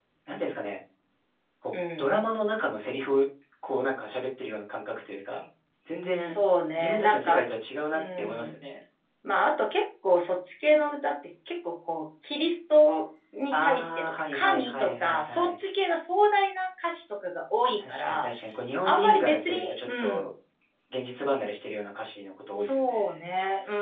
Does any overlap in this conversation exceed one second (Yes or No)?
Yes